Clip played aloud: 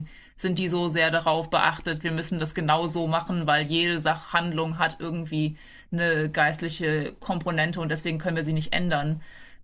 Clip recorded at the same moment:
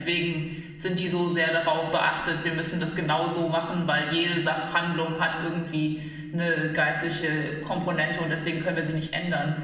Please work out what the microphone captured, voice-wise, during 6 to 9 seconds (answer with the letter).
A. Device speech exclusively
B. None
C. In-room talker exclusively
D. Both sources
A